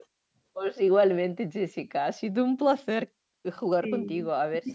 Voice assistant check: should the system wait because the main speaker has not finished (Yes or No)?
Yes